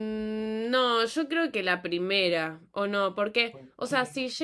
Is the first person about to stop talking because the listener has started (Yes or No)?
No